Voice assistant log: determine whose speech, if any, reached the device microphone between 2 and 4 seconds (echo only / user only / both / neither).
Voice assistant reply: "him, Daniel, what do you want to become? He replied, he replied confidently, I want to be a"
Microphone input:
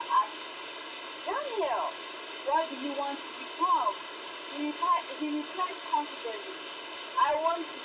echo only